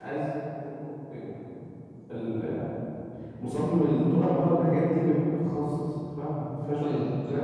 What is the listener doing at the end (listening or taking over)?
taking over